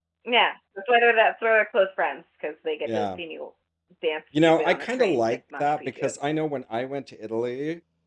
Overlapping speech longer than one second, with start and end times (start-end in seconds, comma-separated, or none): 4.3-6.1